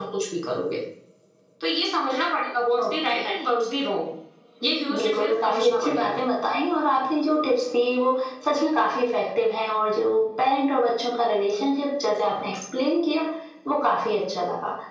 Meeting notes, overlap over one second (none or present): present